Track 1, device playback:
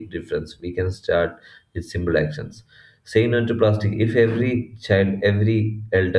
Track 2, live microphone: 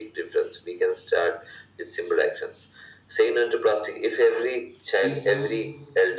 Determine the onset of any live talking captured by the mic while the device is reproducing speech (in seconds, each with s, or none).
4.9 s